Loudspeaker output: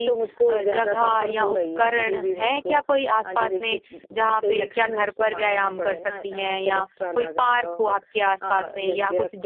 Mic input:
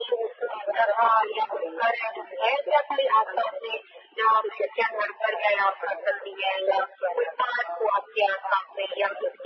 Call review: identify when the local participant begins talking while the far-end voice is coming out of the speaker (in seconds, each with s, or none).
none